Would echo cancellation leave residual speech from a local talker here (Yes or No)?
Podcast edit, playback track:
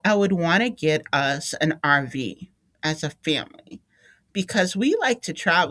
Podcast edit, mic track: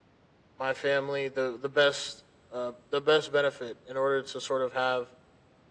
Yes